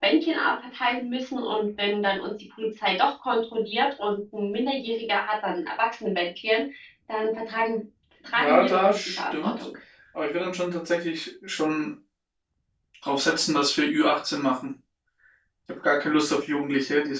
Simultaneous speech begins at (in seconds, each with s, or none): 8.3 s